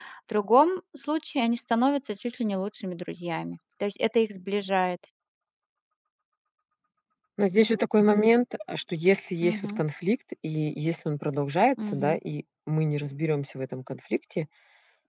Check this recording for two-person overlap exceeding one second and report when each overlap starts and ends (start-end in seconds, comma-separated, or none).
none